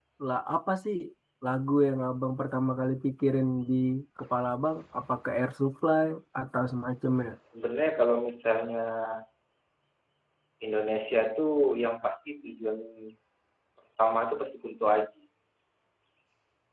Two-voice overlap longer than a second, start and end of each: none

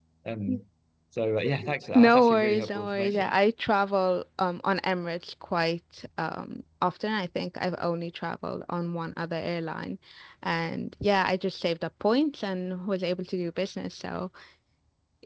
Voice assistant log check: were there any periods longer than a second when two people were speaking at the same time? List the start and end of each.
2.0-3.3

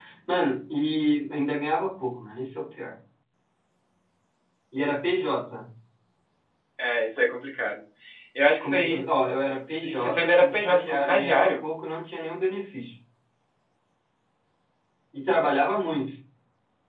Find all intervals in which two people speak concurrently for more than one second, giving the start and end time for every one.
9.8-11.6

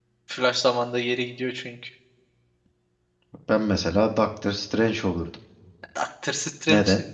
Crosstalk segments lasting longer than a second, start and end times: none

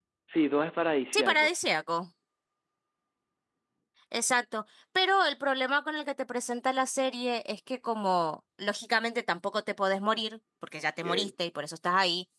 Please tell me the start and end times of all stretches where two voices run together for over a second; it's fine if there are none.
none

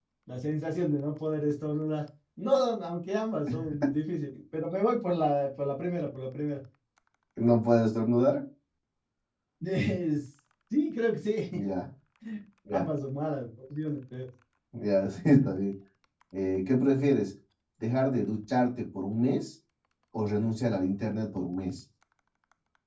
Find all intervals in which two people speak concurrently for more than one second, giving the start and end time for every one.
none

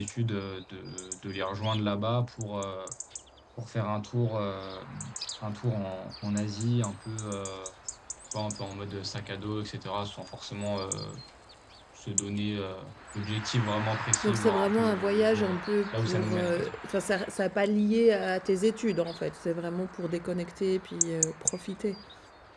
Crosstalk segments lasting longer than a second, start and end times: 14.2-16.8

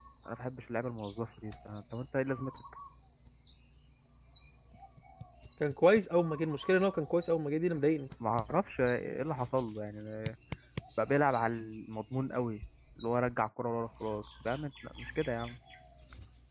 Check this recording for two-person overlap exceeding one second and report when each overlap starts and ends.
none

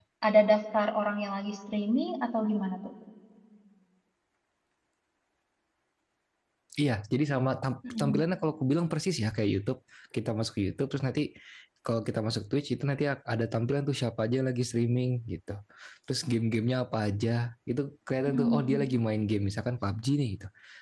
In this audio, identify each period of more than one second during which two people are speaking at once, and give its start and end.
none

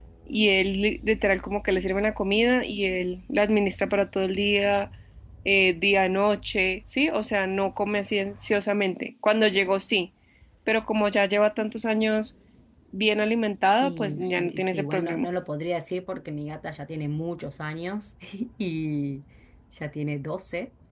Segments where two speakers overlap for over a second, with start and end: 13.8-15.3

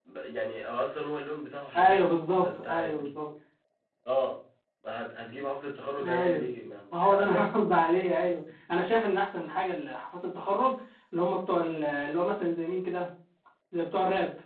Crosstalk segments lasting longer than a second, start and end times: 1.8-3.1

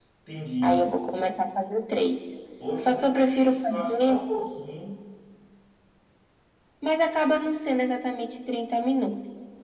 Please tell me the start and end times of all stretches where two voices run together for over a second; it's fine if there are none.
2.8-4.2

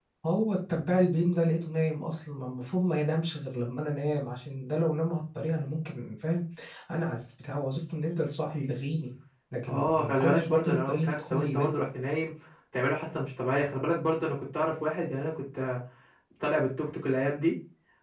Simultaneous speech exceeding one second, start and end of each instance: 9.7-11.7

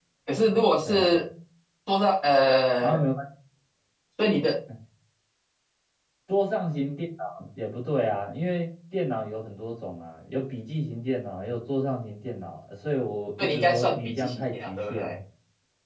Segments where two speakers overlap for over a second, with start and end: 13.4-15.1

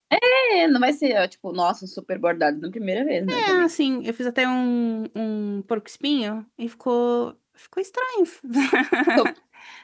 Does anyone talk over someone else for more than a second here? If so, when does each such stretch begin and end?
none

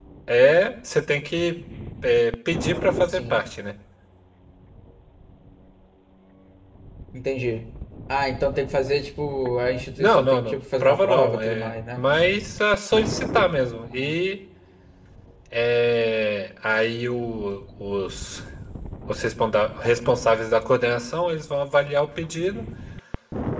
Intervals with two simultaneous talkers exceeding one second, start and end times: 10.0-12.1

